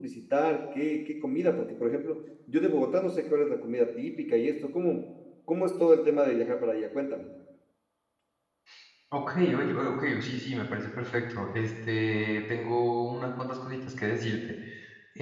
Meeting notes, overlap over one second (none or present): none